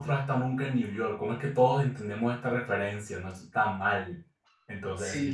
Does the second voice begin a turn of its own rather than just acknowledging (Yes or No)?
Yes